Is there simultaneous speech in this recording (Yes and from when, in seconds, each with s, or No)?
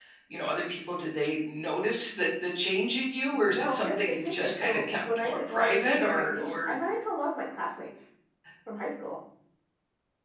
Yes, from 3.3 s